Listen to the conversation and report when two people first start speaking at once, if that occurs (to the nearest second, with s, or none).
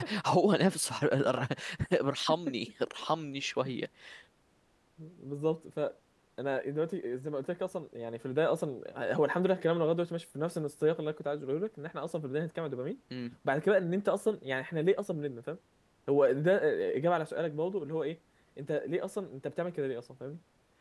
none